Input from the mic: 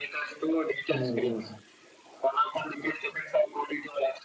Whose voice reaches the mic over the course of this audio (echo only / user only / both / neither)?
both